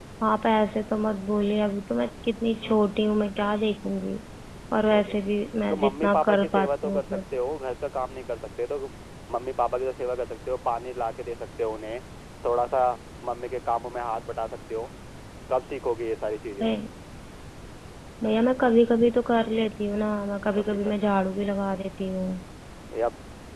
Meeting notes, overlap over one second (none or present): present